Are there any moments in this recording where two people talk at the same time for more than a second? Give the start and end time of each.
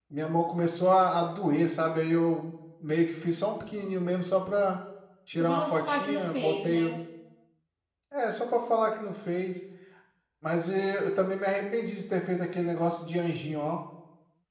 5.4-7.0

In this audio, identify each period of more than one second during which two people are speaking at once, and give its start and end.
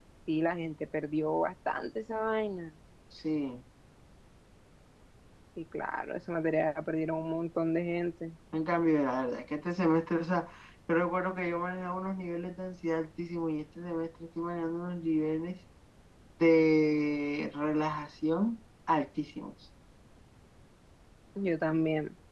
none

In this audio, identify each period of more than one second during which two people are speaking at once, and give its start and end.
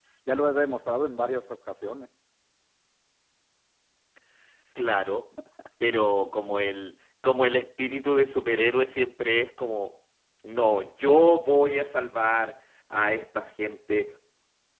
none

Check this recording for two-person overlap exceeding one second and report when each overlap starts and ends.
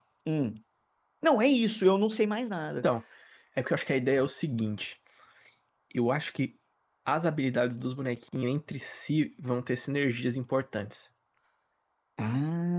none

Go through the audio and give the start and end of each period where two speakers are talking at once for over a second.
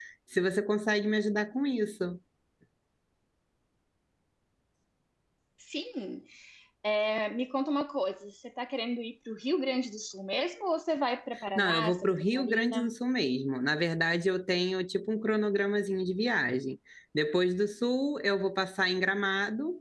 11.6-13.0

